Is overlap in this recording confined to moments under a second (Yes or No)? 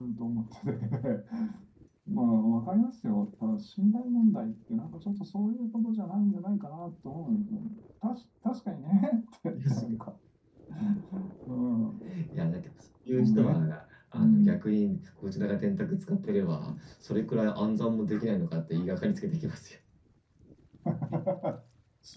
Yes